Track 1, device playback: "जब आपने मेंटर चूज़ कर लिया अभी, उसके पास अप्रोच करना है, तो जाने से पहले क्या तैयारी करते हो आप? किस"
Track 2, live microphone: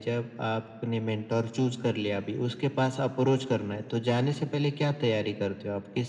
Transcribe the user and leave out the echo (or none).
none